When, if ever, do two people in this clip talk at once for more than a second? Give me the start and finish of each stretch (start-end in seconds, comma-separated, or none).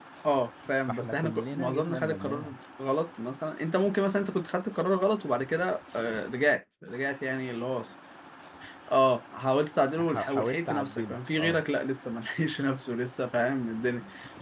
0.9-2.6, 10.0-11.6